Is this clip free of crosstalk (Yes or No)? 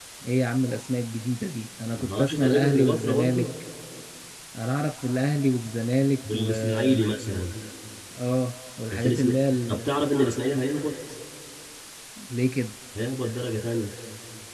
No